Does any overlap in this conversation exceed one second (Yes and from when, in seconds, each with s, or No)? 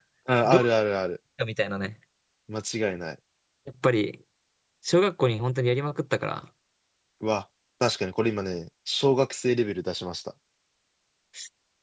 No